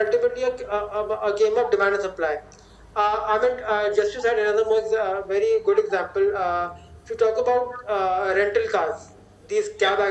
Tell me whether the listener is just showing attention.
Yes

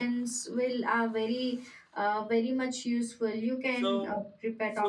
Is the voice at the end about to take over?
Yes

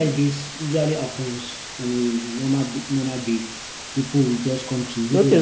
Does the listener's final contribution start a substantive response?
Yes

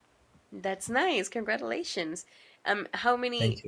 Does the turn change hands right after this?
No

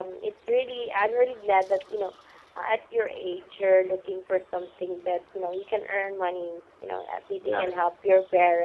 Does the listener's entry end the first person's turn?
No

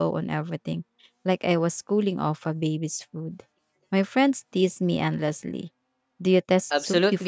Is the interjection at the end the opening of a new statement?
Yes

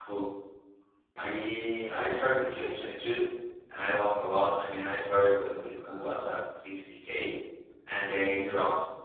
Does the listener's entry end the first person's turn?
No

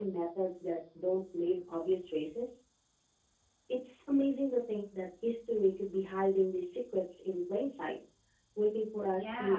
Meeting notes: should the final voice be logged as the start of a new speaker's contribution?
Yes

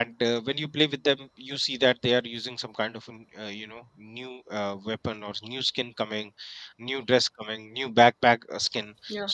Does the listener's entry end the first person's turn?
No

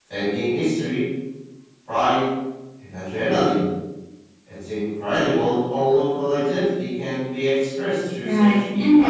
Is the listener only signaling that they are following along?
No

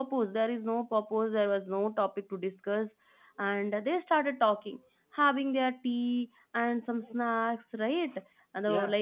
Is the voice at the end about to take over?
No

